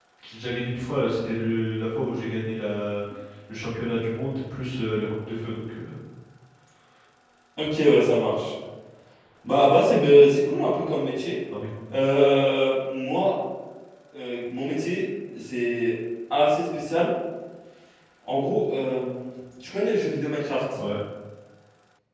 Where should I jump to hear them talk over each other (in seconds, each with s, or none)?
none